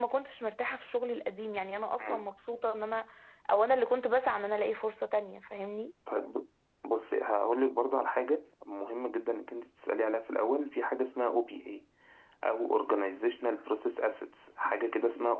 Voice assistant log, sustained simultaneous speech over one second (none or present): none